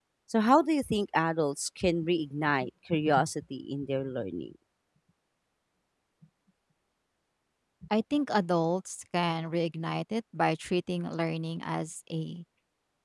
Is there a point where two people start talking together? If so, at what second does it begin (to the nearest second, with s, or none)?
none